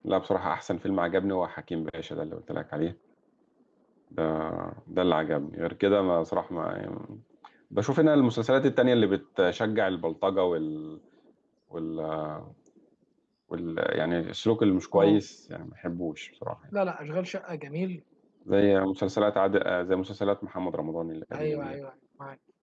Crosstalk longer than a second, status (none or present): none